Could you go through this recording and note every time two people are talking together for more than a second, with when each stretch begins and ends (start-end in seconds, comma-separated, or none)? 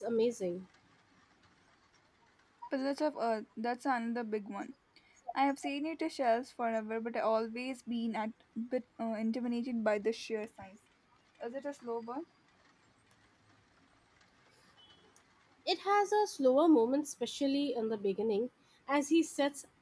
none